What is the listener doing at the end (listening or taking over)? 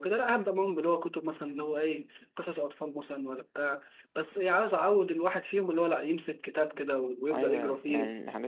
taking over